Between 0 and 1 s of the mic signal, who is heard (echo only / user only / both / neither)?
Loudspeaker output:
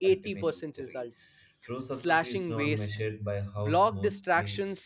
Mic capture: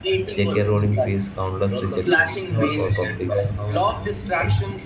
both